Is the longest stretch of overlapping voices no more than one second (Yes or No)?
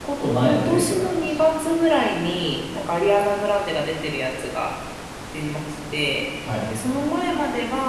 No